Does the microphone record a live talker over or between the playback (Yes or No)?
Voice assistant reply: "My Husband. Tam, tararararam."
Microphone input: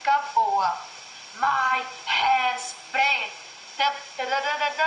No